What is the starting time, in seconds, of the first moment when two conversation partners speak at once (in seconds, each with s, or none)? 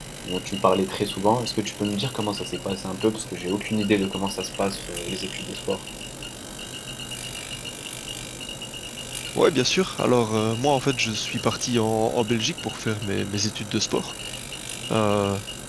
none